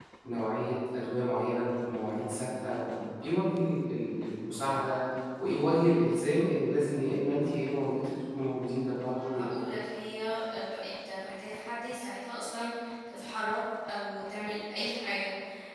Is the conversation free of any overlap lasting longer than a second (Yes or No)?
Yes